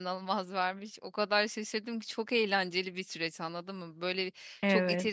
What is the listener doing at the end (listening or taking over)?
listening